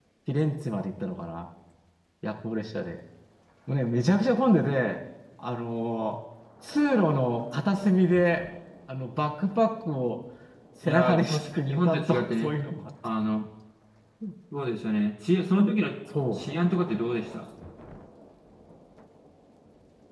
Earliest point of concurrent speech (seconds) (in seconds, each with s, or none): 10.8 s